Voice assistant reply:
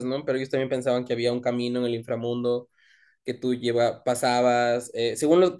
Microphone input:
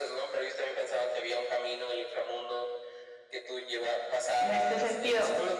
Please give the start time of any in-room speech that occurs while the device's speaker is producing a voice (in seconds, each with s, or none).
4.4 s